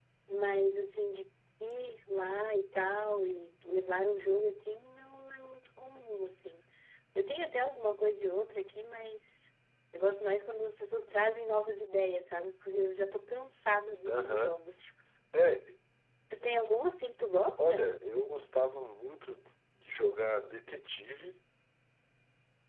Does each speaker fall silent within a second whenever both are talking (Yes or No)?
Yes